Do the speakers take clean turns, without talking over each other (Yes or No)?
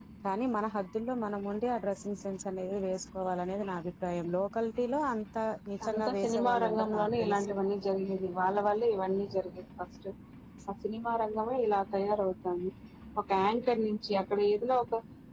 No